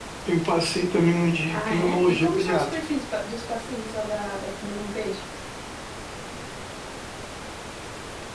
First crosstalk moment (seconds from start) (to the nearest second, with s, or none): 1 s